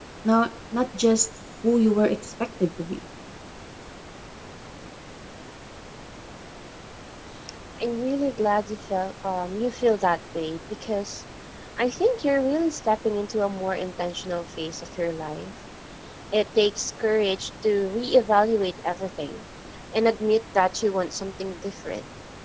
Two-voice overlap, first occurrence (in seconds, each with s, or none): none